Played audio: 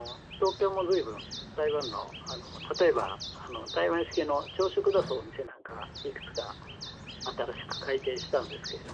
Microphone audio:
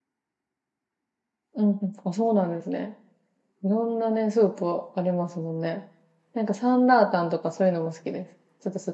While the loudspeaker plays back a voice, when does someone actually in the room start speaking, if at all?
1.5 s

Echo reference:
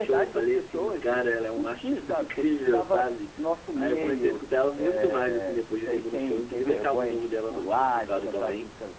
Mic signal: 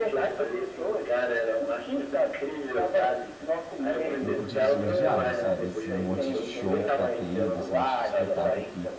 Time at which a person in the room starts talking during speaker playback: 4.2 s

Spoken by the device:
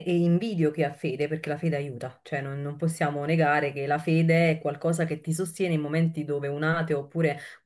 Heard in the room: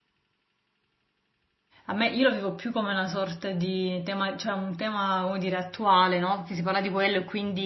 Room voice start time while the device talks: 1.9 s

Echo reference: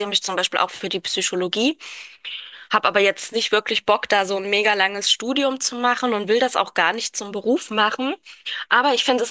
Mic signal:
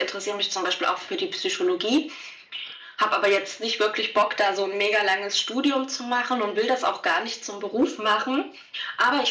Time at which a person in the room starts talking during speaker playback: none

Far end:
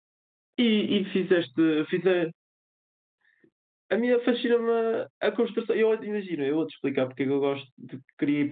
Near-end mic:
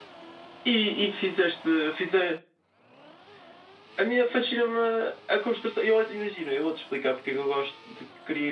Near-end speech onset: none

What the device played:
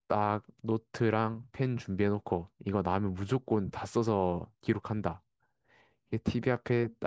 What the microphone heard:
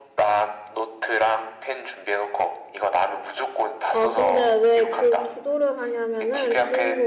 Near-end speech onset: 3.9 s

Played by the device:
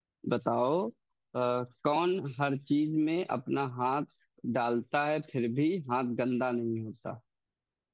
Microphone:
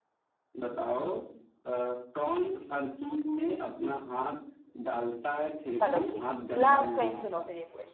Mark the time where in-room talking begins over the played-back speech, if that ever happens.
5.7 s

